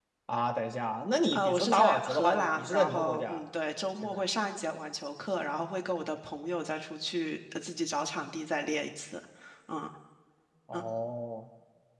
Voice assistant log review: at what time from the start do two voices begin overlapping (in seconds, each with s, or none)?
1.3 s